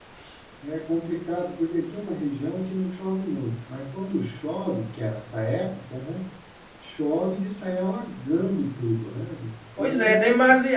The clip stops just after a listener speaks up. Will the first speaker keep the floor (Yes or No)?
No